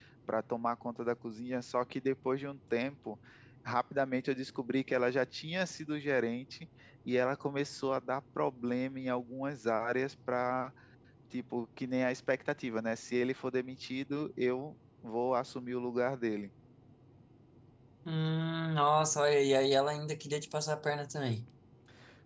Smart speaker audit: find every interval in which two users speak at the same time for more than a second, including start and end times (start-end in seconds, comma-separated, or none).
none